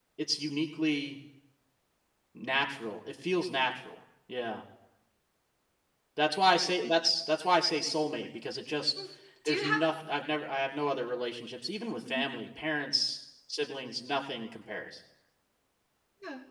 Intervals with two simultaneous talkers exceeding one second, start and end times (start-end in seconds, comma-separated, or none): none